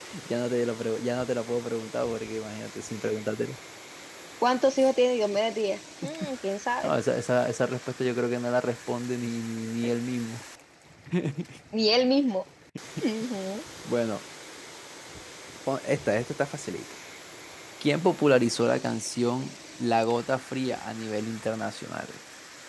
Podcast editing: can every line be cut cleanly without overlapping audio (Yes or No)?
Yes